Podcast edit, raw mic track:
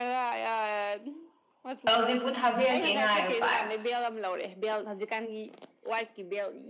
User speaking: Yes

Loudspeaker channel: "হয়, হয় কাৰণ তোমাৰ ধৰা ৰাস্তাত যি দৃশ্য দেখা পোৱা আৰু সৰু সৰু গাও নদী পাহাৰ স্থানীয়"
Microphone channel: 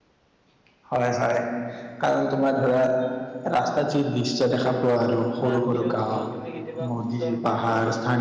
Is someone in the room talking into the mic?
Yes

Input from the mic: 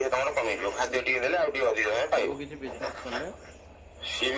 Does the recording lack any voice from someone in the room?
No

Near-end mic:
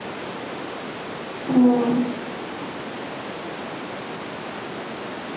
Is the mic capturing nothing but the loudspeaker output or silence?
No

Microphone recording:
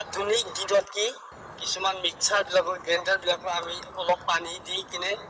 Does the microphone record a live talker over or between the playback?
No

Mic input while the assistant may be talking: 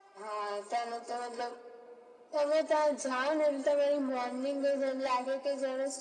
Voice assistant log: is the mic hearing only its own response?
Yes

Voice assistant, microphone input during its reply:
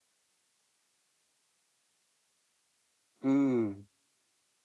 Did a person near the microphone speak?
Yes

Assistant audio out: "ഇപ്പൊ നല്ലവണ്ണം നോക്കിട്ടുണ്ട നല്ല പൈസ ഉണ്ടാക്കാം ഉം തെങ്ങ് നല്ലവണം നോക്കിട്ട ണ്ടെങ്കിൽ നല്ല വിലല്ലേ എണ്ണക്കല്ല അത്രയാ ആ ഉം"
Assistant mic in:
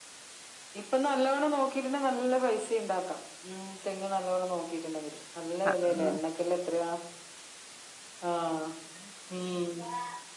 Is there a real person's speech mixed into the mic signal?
Yes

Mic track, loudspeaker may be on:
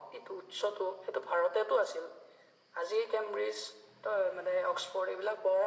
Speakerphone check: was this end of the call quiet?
Yes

